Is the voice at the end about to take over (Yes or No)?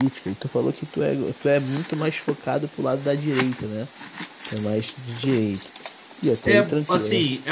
Yes